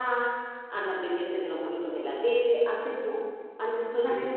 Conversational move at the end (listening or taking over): listening